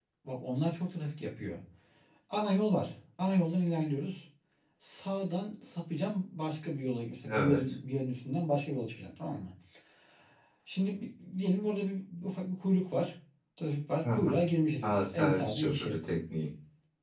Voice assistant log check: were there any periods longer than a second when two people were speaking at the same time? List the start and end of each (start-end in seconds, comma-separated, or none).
14.8-16.0